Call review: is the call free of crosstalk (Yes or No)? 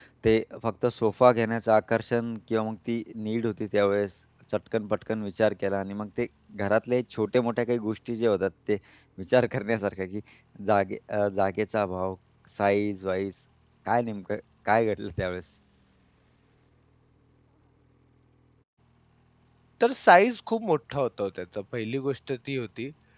Yes